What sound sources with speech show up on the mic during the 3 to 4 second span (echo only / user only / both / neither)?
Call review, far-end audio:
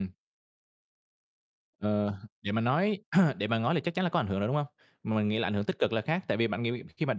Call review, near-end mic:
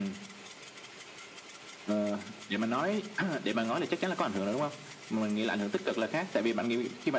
echo only